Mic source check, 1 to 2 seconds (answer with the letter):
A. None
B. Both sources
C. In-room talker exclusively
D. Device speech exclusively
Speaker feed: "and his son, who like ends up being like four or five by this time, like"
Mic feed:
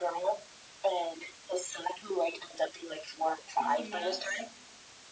D